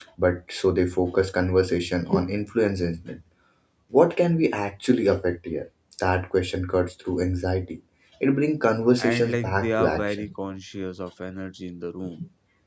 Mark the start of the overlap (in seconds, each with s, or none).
9.0 s